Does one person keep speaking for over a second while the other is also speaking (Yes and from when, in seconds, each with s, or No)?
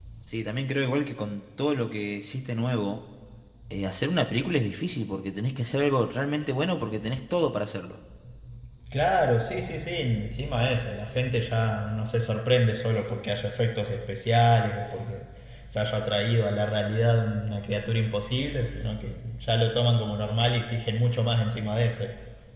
No